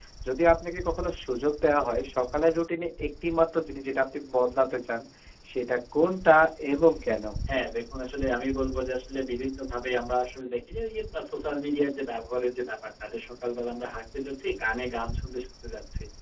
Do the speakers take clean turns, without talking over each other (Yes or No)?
Yes